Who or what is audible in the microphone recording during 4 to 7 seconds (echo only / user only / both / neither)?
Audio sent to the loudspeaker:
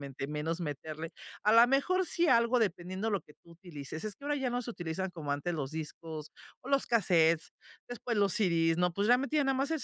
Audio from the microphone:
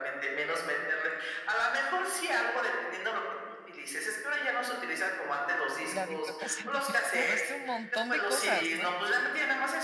both